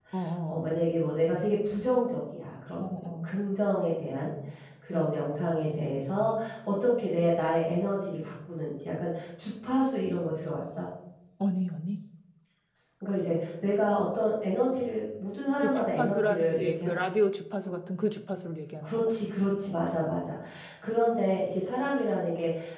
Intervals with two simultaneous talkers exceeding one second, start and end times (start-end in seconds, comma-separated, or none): 15.6-16.9